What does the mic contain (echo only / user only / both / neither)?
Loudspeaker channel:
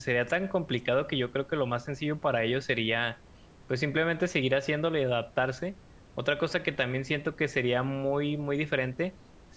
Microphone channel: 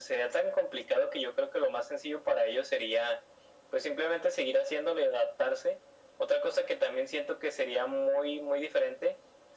echo only